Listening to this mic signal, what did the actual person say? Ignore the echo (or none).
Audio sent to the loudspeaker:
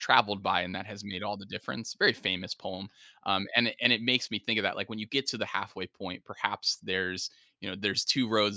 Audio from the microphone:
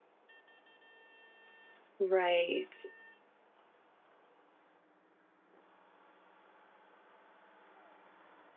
Right.